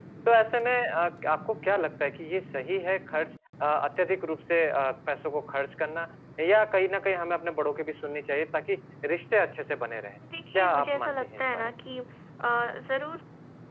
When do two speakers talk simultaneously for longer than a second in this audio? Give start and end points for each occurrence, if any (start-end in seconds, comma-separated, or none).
10.5-11.8